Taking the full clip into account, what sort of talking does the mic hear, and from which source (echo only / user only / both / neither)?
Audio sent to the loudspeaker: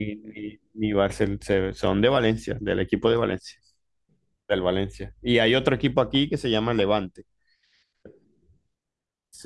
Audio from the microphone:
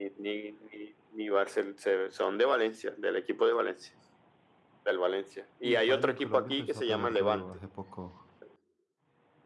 both